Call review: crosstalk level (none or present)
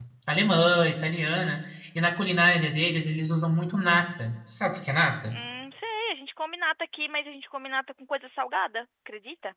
none